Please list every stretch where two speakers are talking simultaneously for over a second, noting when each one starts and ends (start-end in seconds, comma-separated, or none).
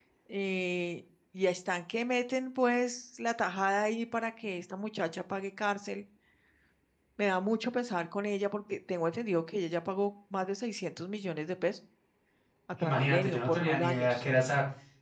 12.8-14.2